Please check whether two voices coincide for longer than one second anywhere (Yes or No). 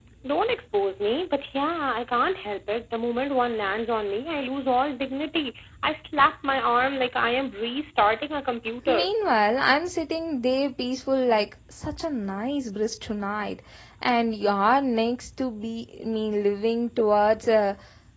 No